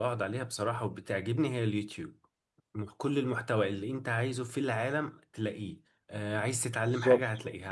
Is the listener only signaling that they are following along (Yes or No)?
Yes